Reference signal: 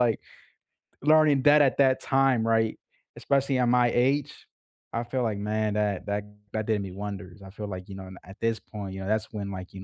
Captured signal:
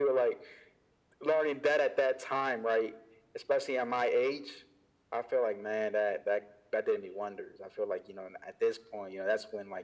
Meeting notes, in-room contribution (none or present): none